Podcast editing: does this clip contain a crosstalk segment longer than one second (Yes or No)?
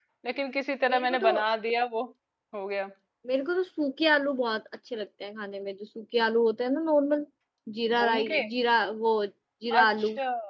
No